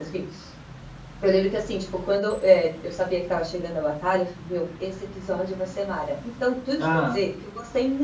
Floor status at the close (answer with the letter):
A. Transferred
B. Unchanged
B